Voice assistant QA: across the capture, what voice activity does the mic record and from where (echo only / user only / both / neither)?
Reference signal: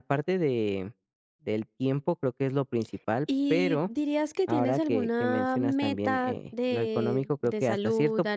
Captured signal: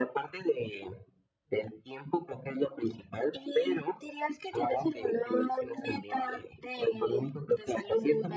echo only